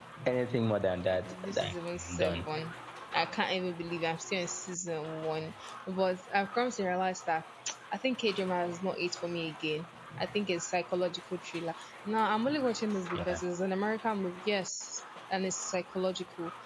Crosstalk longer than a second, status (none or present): present